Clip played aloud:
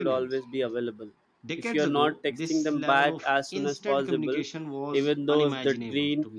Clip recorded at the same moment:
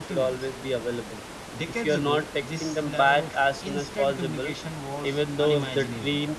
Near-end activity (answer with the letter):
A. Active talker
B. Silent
B